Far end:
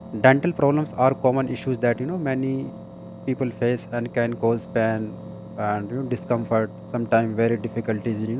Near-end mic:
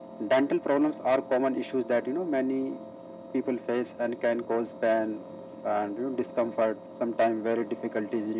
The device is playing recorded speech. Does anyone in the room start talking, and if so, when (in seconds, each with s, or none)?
none